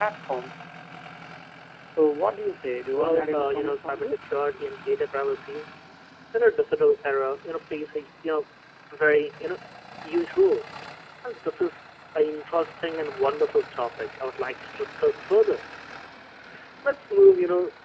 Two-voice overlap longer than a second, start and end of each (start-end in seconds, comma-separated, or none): 3.0-4.2